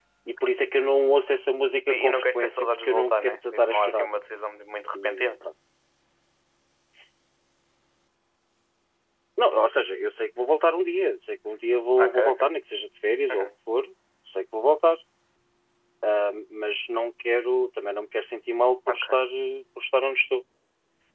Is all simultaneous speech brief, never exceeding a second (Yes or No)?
No